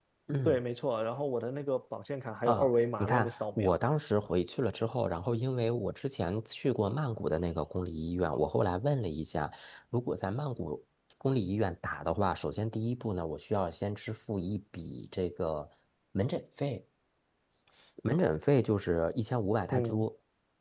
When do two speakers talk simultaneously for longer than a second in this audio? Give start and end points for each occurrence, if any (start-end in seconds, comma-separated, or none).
2.5-3.8